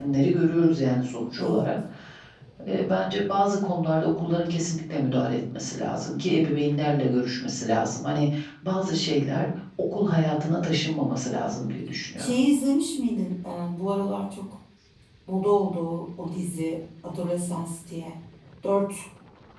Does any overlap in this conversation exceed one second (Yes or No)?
No